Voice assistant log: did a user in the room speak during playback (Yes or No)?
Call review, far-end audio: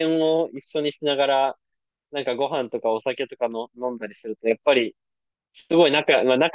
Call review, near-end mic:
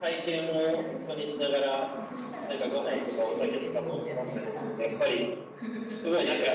Yes